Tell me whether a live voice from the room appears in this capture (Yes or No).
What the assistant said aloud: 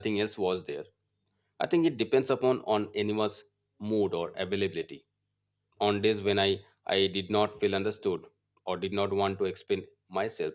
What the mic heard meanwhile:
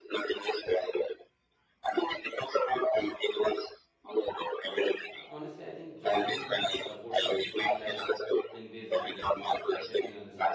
Yes